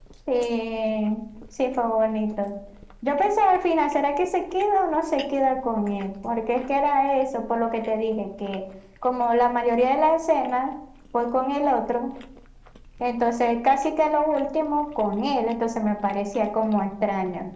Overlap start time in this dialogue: none

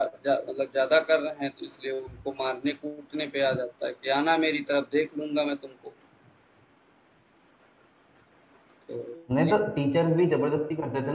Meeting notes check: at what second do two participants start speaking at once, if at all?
none

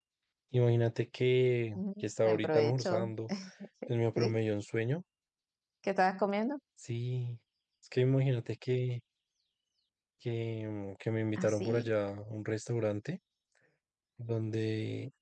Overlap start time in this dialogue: 1.8 s

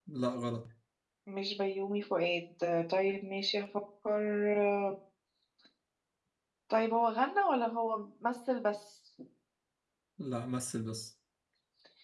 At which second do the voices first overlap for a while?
none

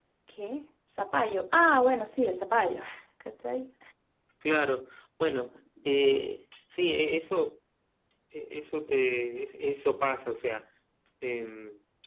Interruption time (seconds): none

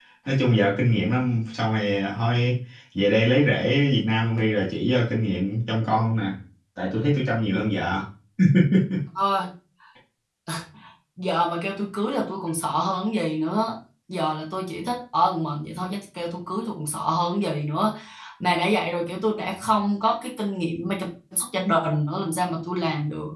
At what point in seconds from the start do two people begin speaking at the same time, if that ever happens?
none

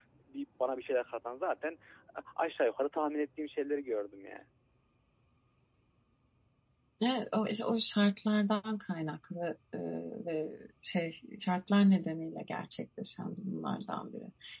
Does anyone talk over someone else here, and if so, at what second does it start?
none

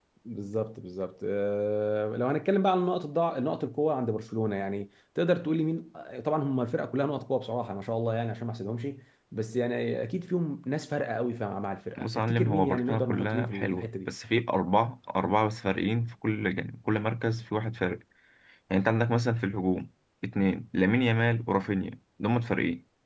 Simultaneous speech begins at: 12.0 s

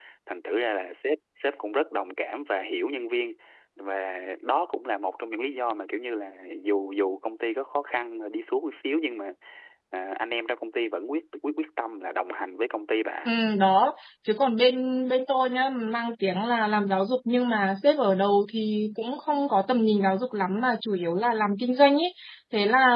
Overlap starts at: none

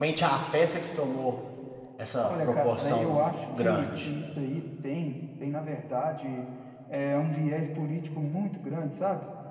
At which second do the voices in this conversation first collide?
2.2 s

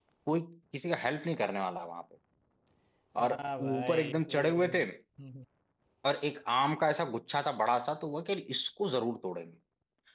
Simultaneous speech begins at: 3.2 s

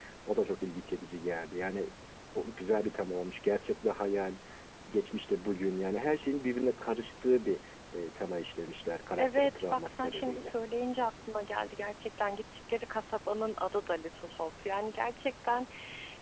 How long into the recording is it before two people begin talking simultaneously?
9.2 s

